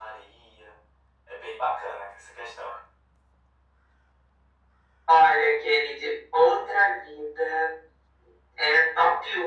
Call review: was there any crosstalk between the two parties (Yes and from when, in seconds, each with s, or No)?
No